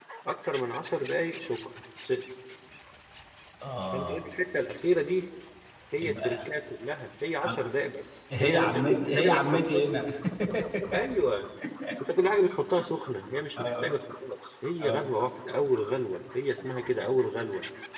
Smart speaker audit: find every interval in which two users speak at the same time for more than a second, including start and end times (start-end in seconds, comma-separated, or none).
8.4-9.9